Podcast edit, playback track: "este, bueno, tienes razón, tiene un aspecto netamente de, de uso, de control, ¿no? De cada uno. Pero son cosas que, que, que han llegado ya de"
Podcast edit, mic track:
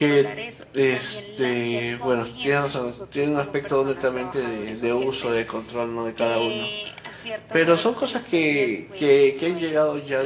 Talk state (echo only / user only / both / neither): both